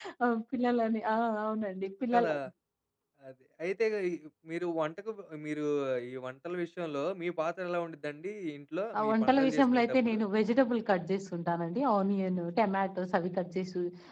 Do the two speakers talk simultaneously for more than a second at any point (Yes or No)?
Yes